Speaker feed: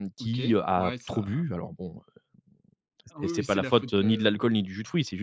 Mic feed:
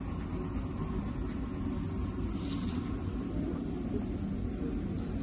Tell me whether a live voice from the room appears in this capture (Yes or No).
No